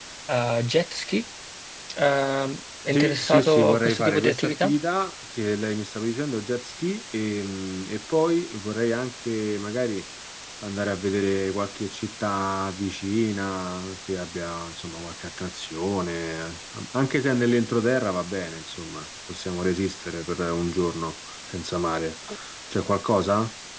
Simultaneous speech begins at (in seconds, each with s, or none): 2.9 s